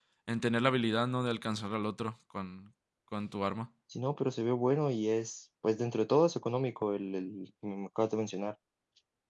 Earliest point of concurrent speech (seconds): none

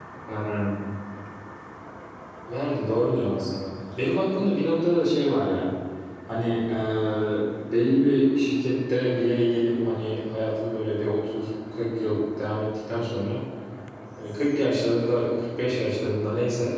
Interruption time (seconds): none

